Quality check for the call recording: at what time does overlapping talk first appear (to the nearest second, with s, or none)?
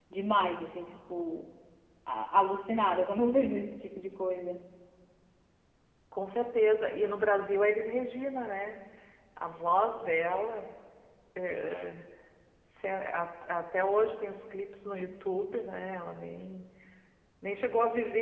none